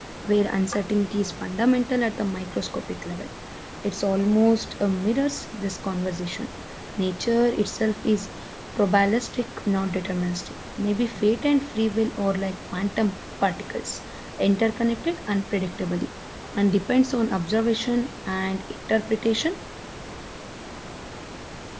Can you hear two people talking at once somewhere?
No

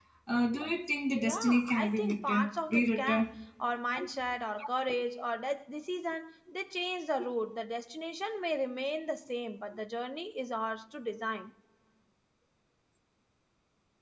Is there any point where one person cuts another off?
Yes, from 1.2 s

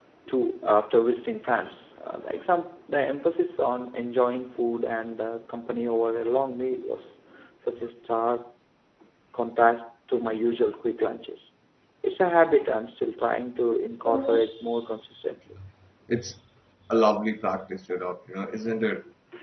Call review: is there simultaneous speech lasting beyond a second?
No

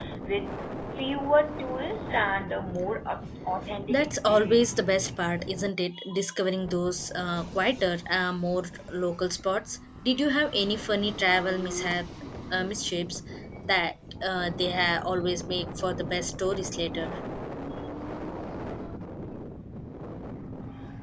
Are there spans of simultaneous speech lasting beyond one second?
Yes, from 3.9 s

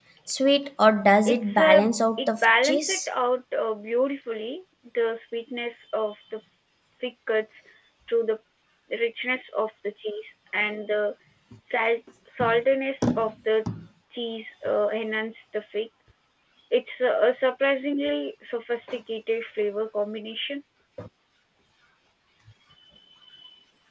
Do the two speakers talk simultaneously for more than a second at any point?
Yes, from 1.3 s

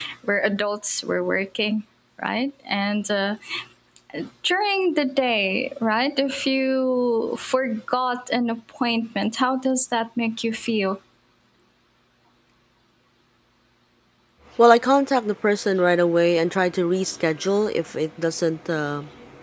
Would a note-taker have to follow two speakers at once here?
No

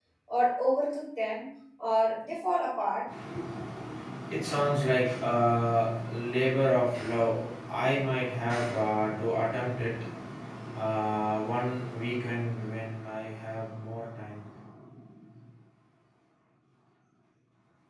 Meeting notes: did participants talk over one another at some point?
No

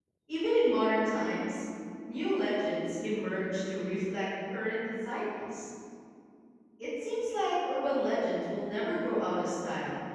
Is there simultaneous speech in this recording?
No

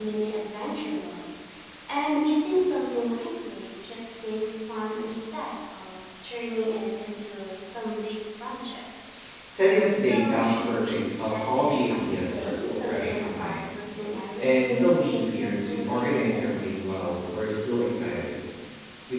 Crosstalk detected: Yes, from 9.8 s

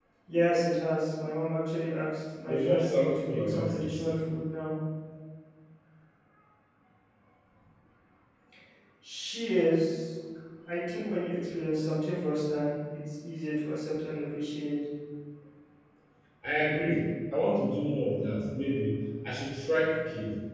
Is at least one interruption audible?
Yes, from 2.5 s

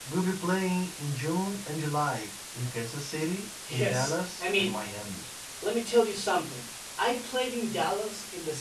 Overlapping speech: Yes, from 3.6 s

